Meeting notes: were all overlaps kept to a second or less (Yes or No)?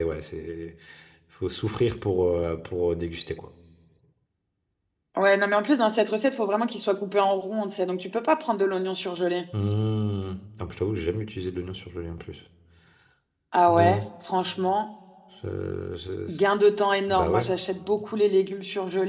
Yes